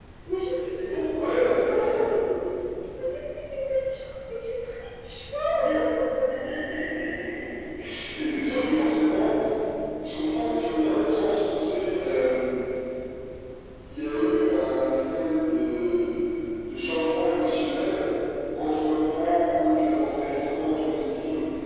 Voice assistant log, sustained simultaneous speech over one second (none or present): present